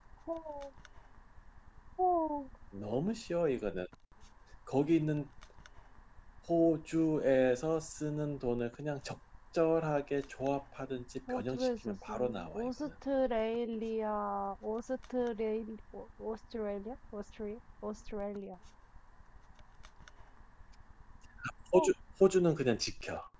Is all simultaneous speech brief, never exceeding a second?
No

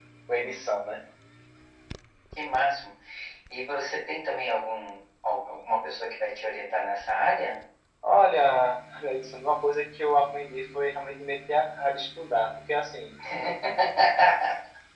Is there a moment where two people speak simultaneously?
No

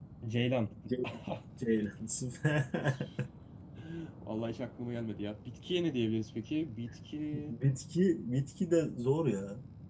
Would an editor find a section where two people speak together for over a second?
No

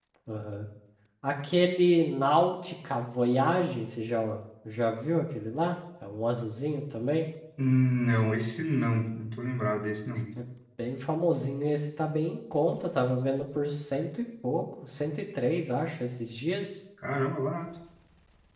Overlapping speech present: No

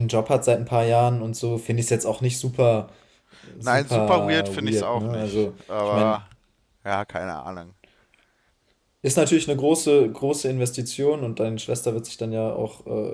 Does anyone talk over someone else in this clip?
Yes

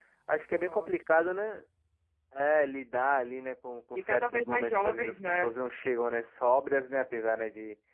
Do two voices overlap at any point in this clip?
Yes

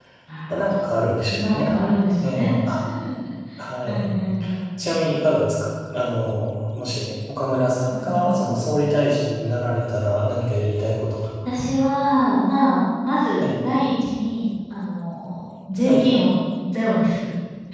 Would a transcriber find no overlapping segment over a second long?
Yes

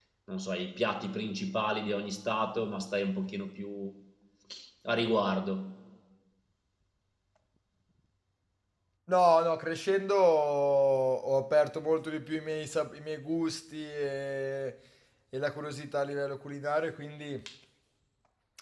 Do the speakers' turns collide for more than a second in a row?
No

